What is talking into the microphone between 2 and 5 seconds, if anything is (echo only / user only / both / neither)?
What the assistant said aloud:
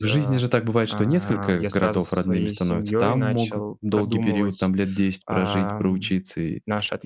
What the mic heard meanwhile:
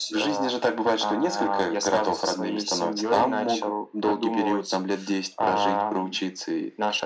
echo only